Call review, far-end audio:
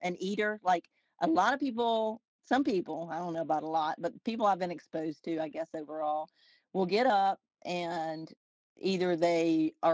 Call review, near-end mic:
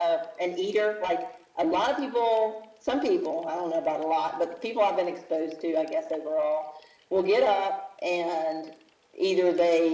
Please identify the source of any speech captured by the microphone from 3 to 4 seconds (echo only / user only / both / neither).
echo only